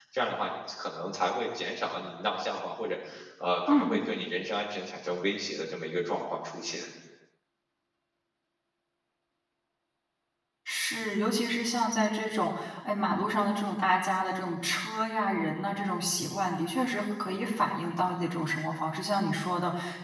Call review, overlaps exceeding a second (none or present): none